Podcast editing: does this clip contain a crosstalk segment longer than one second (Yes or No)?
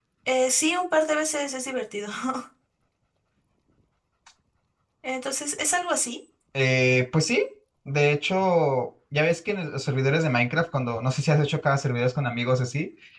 No